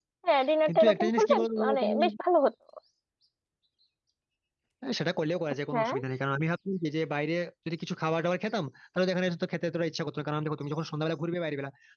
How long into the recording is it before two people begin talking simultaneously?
1 s

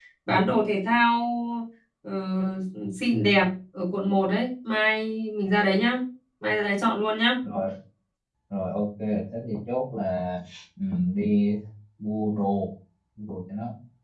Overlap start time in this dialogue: none

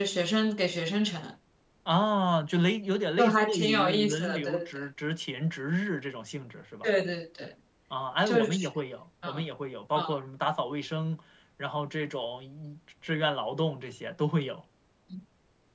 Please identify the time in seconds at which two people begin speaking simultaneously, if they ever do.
3 s

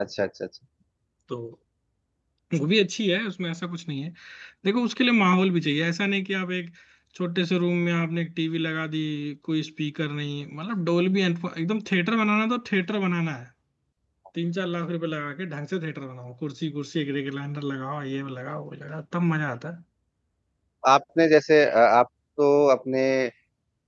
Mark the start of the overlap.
none

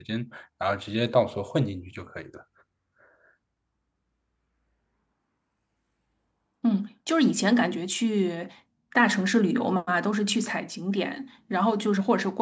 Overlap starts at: none

